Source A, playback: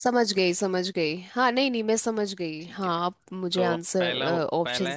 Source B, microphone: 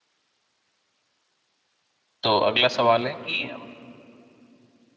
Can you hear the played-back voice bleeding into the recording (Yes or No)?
No